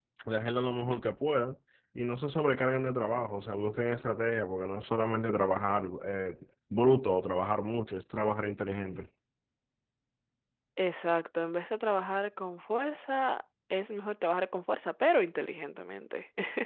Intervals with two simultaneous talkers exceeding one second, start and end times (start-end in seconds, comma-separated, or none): none